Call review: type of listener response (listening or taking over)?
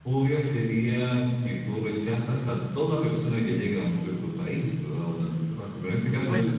listening